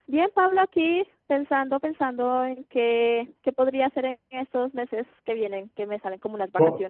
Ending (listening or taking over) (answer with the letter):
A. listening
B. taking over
B